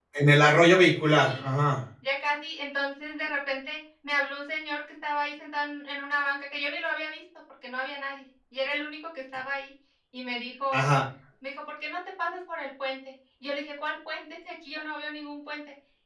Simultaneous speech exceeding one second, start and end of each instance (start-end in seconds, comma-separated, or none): none